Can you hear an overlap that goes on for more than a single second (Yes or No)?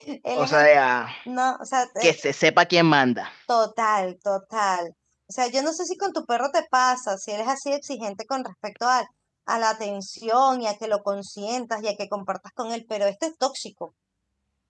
No